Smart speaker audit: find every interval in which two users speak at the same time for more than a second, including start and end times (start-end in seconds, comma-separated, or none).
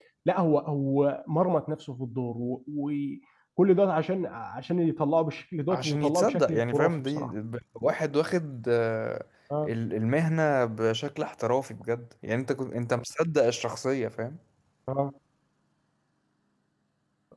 5.7-7.3